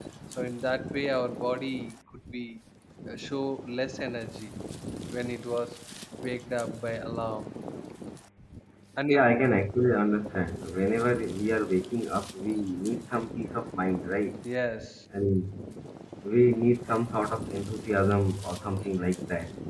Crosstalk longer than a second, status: none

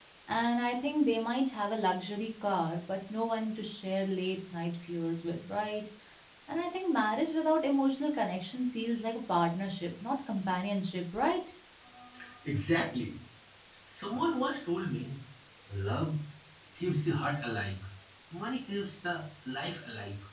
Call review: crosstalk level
none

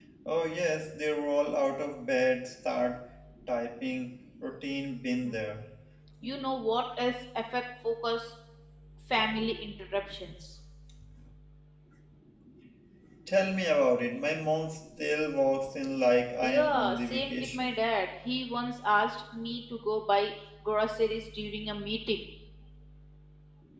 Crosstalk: present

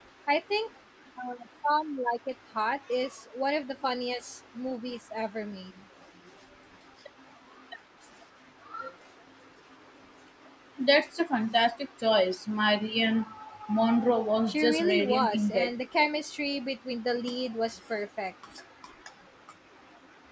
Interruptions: present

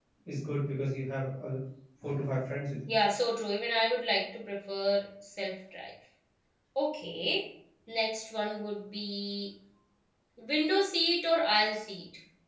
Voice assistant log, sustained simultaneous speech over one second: none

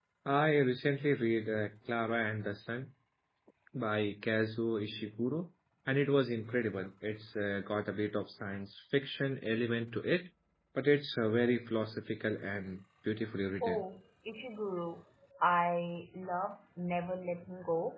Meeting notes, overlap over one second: none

